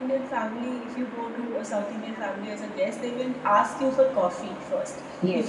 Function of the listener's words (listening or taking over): listening